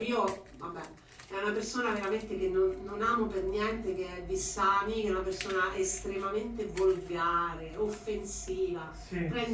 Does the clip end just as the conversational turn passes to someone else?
No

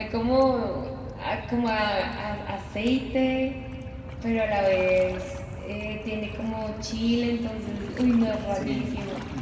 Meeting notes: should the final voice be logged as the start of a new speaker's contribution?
Yes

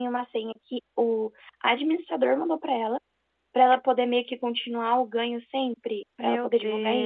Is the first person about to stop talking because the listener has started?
Yes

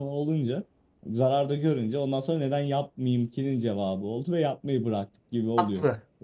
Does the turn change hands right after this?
Yes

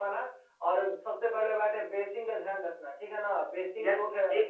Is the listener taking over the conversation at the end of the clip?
Yes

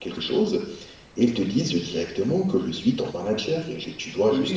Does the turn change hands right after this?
No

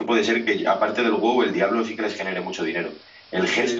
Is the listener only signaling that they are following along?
Yes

